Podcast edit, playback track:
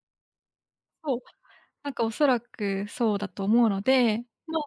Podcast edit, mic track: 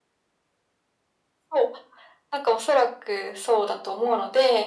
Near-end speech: none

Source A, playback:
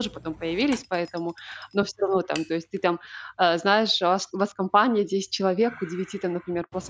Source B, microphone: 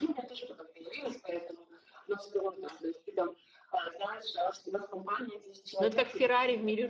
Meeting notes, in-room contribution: present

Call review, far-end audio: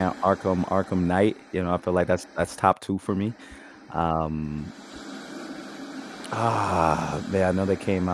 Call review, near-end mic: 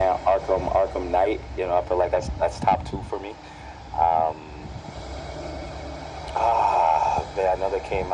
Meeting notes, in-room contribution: none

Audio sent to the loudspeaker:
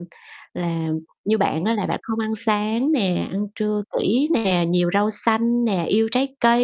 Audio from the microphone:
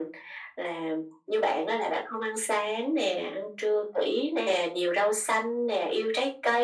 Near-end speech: none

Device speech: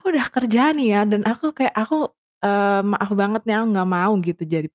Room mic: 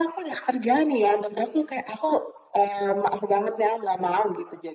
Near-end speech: none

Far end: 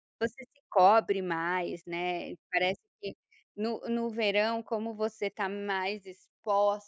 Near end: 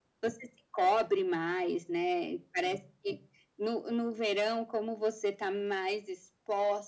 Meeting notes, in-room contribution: none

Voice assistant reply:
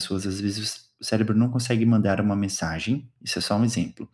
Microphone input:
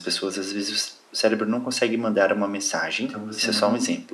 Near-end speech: present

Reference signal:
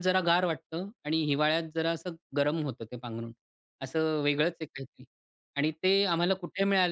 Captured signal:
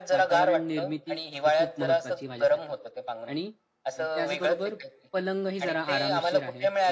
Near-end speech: present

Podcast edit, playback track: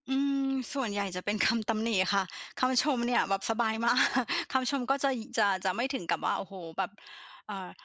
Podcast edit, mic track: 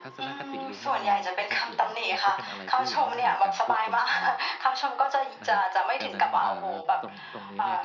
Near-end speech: present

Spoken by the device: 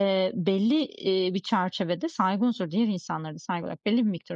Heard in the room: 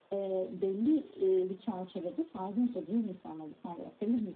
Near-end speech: none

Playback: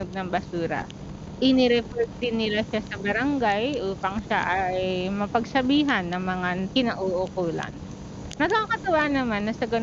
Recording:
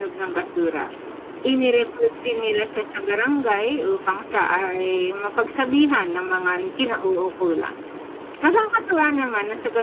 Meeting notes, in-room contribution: none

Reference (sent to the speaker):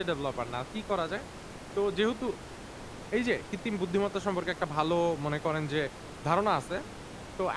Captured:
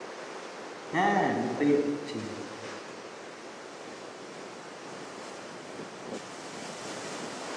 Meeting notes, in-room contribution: present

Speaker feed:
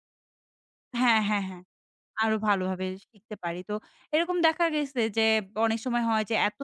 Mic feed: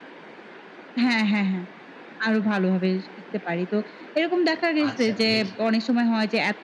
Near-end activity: present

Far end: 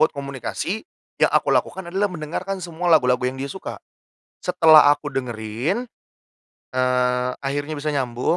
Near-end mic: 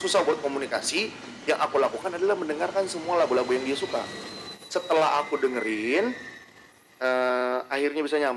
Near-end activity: none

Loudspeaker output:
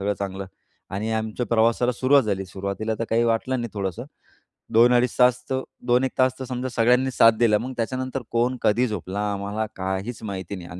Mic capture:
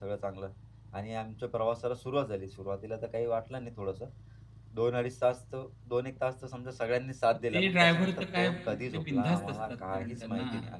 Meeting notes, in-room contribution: present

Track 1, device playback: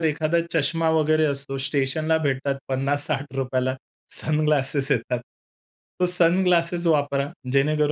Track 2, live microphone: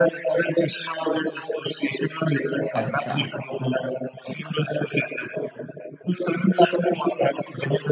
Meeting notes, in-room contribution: present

